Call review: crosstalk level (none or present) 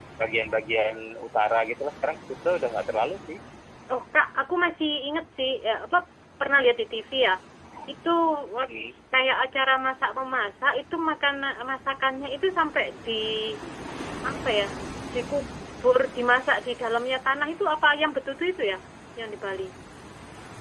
none